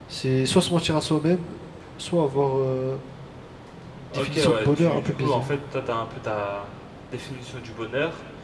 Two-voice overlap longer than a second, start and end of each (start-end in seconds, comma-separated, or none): 4.1-5.4